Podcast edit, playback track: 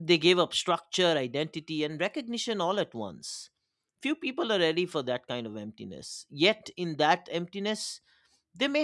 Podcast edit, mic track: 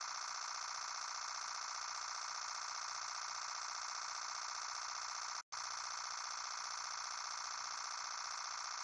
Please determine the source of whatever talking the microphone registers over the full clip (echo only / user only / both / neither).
neither